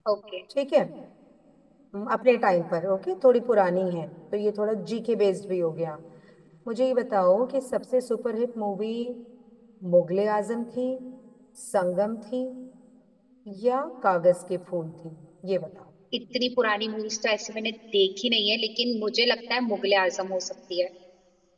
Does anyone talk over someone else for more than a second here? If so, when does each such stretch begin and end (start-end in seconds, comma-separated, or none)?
none